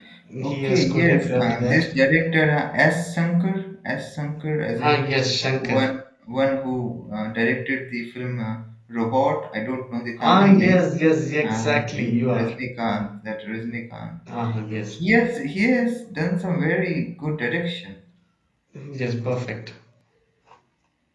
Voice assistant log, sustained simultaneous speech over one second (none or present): present